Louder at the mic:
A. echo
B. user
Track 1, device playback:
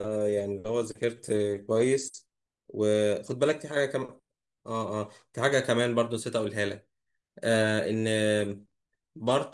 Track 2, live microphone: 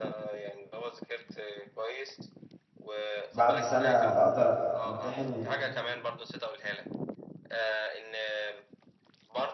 B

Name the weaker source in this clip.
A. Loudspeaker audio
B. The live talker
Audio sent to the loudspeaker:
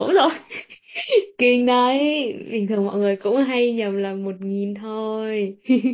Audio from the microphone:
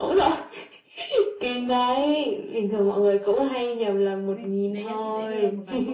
B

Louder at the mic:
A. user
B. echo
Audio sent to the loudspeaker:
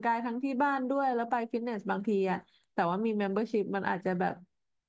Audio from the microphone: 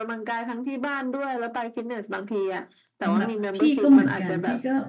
A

